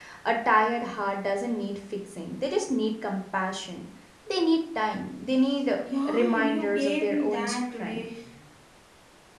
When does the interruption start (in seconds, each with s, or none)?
6.0 s